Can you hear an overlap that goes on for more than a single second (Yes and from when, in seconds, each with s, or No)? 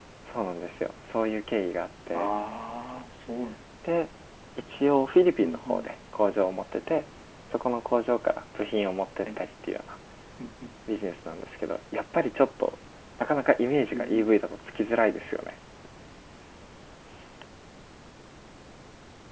No